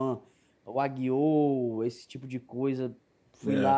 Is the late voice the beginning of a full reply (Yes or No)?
No